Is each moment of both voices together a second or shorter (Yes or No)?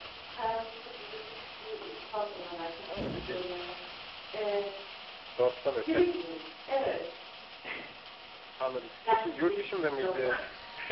No